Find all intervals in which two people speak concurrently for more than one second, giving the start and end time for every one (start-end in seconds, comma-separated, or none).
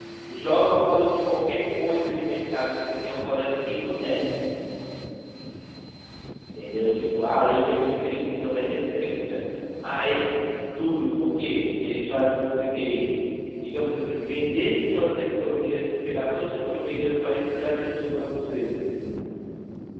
none